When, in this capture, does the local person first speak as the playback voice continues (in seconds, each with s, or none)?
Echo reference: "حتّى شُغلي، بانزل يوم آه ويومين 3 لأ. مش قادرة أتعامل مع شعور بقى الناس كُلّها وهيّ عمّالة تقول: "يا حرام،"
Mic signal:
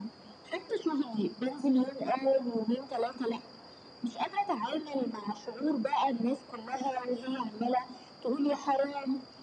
none